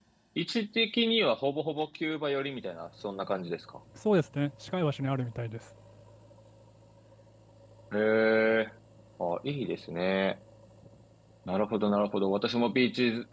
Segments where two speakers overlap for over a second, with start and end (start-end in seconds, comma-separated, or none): none